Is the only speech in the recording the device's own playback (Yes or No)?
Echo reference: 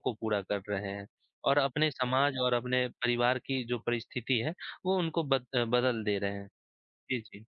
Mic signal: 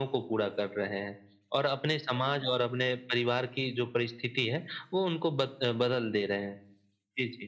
Yes